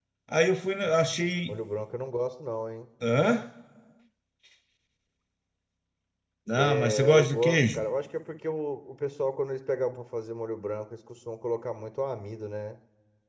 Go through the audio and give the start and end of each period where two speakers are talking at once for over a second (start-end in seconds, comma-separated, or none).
6.5-7.8